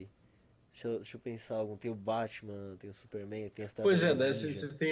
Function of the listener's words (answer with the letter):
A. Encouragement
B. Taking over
B